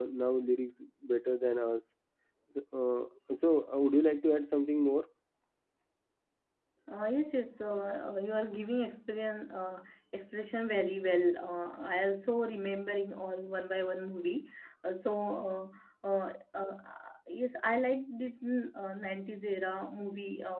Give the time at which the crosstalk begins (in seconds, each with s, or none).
none